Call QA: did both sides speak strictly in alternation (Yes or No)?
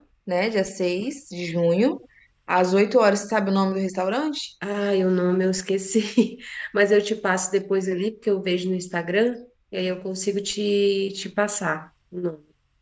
Yes